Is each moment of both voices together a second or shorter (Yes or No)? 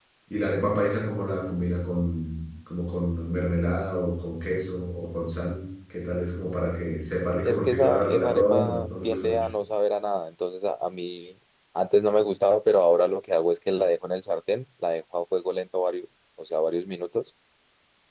No